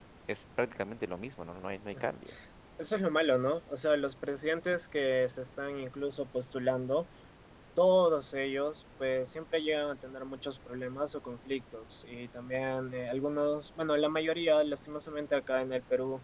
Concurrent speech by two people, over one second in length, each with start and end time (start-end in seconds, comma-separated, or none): none